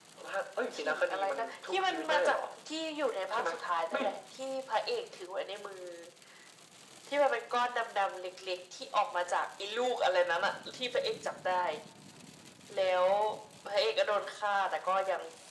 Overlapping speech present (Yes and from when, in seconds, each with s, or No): Yes, from 0.7 s